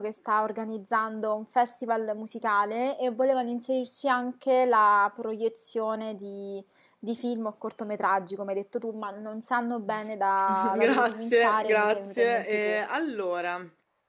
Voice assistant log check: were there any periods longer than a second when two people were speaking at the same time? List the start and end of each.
10.5-12.8

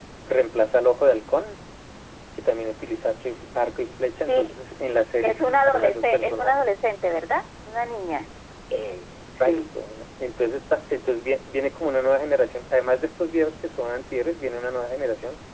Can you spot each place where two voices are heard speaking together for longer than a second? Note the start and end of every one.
5.2-6.6

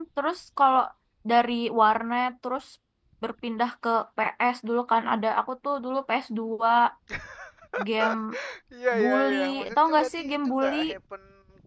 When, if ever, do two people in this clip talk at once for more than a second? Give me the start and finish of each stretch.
9.0-10.8

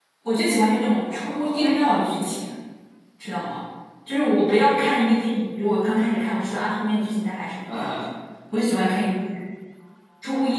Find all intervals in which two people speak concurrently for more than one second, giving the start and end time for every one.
1.1-2.3

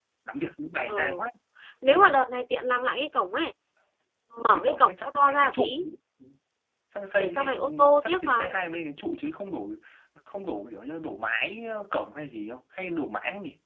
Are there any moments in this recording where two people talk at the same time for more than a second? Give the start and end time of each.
4.5-5.7, 7.2-8.5

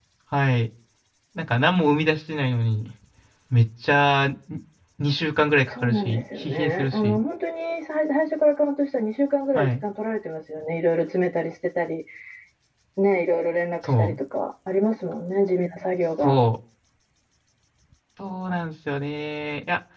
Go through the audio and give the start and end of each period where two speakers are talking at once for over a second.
5.7-7.2

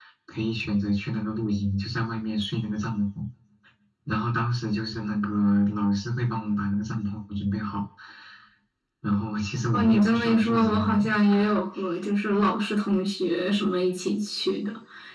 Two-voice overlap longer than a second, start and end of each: 9.7-11.1

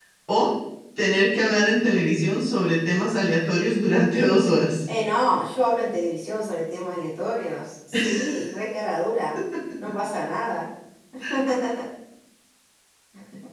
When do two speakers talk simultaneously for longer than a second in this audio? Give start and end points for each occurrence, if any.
none

